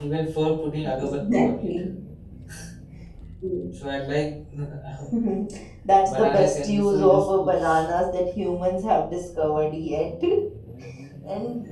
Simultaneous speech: Yes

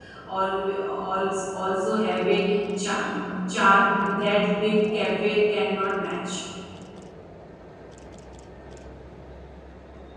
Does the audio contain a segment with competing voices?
No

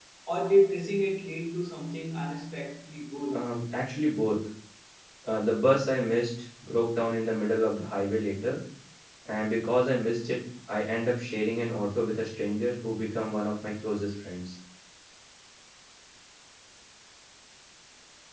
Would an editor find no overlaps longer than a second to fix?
Yes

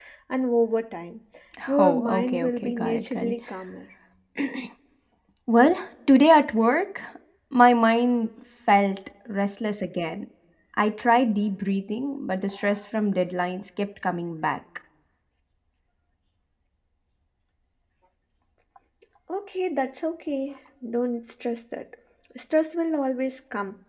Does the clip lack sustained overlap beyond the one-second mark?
No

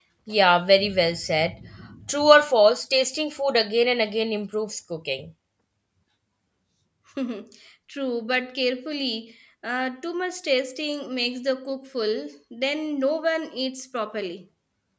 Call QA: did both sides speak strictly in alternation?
Yes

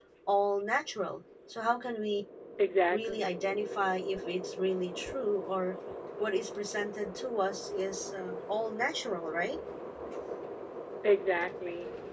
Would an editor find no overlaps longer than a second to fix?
Yes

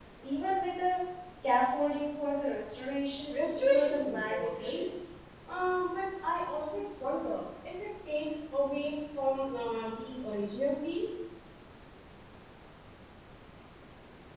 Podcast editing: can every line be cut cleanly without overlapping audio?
No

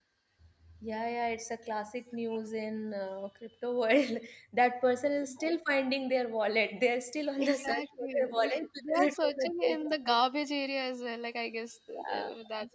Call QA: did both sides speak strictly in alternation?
No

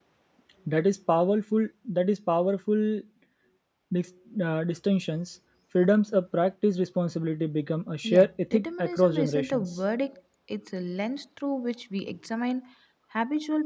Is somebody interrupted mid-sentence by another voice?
Yes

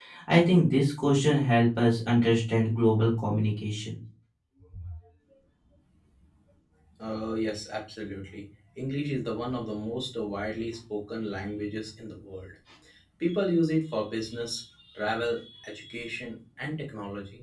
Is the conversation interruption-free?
Yes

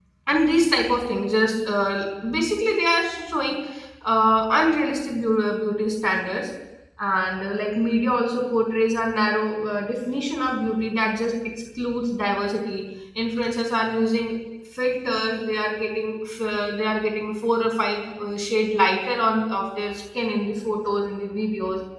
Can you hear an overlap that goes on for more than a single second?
No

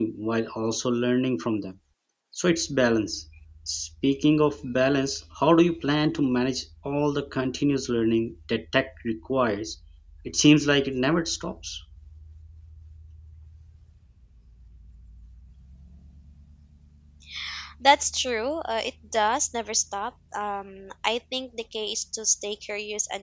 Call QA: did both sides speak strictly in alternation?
Yes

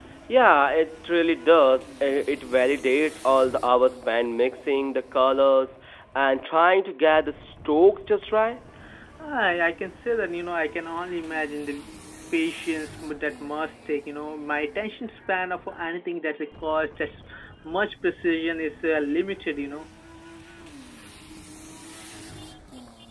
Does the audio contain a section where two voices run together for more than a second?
No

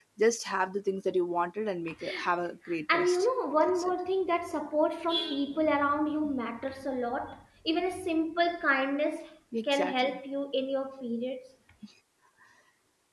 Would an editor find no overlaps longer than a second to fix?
Yes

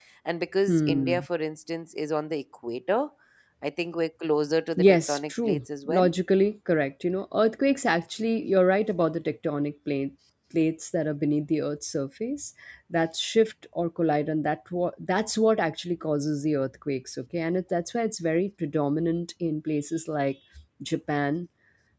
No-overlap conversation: No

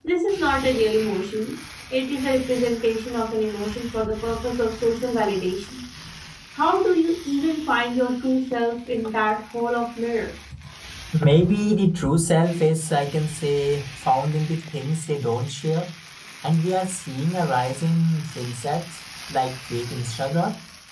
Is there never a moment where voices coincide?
Yes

